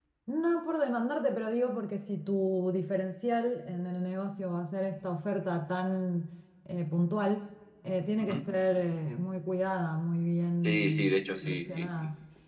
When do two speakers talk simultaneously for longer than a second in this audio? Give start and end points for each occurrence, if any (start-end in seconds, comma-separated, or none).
10.6-11.9